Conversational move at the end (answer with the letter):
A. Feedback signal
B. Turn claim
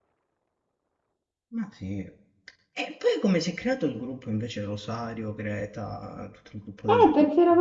B